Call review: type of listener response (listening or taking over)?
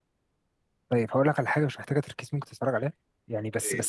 listening